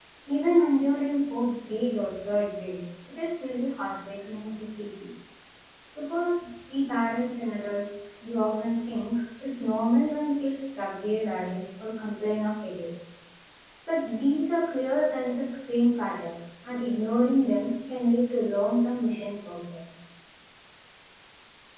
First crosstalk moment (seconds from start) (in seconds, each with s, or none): none